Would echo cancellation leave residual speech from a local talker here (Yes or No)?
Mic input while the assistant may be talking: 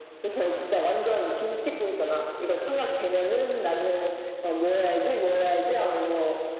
No